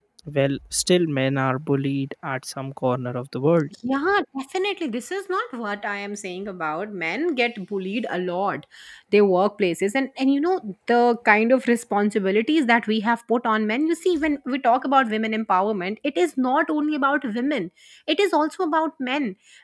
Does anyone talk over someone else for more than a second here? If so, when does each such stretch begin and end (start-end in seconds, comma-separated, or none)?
none